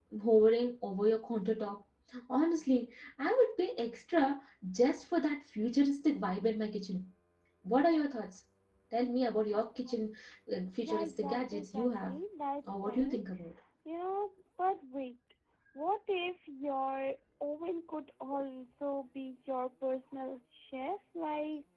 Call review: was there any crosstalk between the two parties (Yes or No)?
Yes